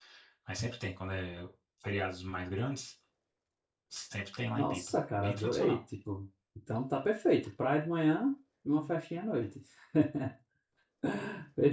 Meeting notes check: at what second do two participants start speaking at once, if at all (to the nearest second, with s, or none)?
5 s